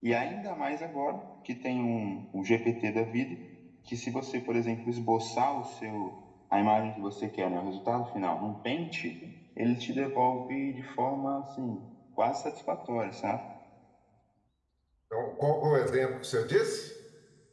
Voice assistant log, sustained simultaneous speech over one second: none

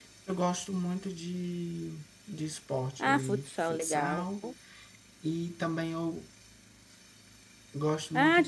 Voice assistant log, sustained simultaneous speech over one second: present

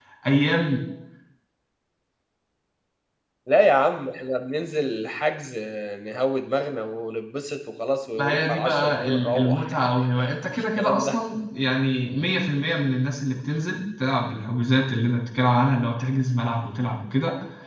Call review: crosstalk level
present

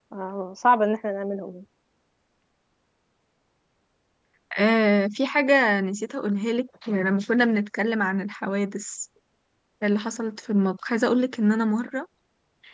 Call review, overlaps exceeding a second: none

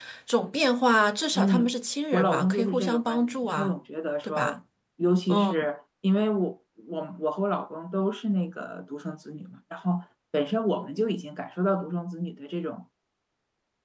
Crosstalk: present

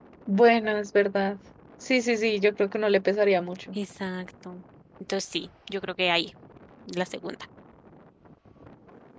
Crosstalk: none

